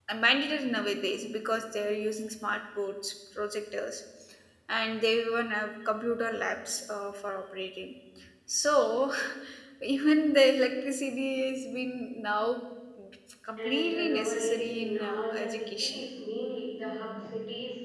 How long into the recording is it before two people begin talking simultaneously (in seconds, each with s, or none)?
13.6 s